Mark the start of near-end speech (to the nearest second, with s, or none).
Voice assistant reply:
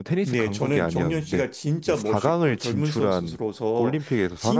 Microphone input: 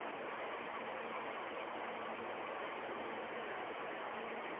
none